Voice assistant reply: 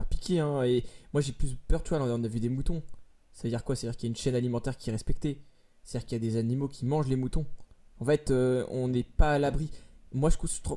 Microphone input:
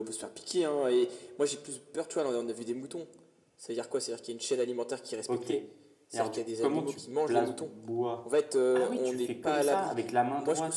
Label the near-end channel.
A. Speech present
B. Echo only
A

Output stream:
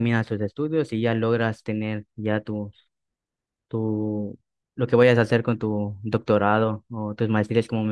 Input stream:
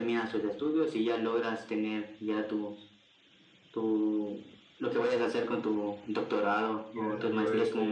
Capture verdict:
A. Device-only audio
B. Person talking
B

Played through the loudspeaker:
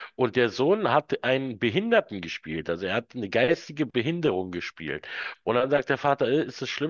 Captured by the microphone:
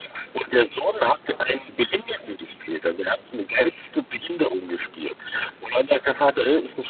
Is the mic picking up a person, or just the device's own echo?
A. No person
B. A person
A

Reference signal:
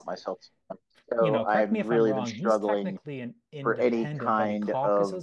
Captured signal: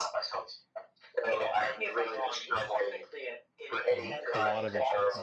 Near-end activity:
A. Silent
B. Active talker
B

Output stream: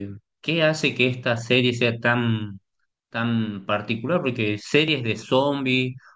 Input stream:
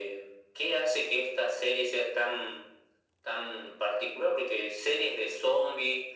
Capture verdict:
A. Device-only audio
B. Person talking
A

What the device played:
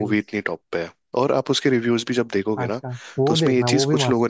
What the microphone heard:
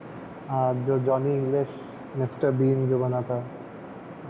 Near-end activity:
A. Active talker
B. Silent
A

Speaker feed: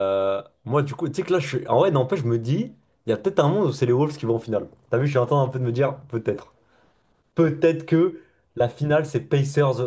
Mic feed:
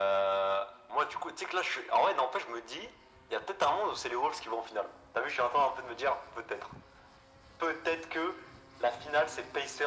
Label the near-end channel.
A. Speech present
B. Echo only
B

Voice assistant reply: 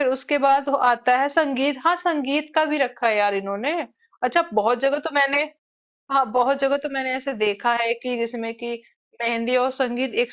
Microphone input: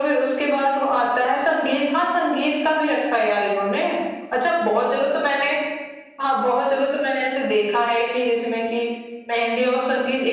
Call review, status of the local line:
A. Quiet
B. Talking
A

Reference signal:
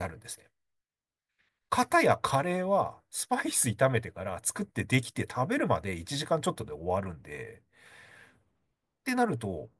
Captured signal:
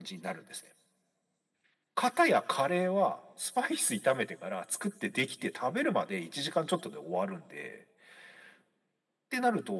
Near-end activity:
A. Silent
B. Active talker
A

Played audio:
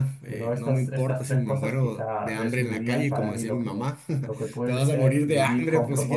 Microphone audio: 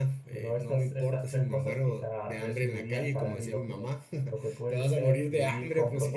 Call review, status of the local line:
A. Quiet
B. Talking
A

